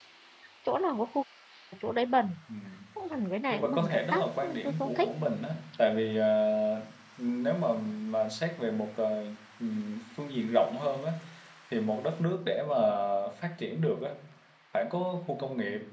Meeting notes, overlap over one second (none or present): present